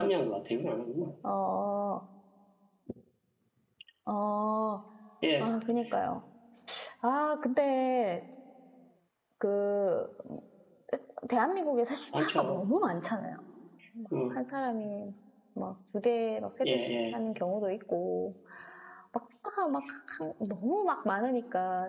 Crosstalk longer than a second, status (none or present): none